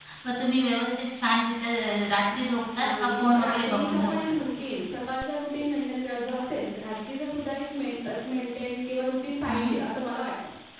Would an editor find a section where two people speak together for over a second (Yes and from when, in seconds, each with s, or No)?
Yes, from 2.8 s